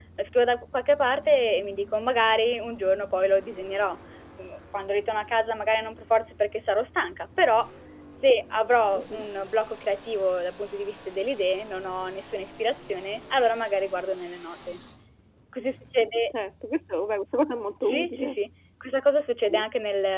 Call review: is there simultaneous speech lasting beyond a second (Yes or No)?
No